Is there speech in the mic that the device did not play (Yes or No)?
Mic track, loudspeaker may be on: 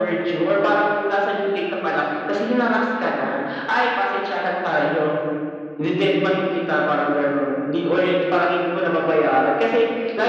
No